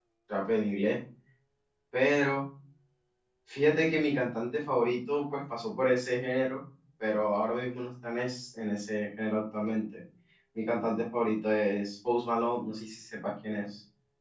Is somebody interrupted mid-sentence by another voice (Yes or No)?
No